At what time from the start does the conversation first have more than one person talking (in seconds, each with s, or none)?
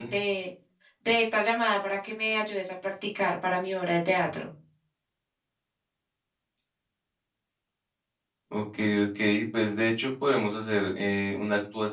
none